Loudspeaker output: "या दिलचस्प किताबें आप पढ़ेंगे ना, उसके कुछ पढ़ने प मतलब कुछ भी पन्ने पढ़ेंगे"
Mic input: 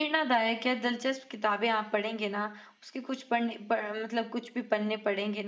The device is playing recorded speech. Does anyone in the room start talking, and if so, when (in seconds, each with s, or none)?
none